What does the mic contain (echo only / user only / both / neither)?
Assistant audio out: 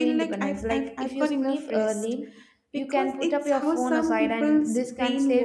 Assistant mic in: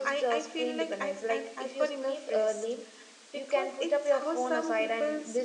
echo only